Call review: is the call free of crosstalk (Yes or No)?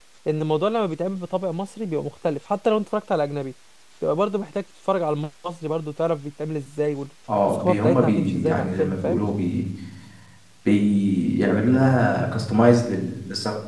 No